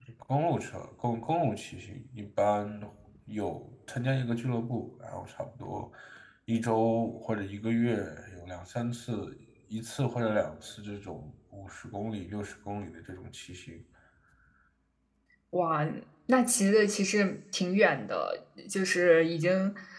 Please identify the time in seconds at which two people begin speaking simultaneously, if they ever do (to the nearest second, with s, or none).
none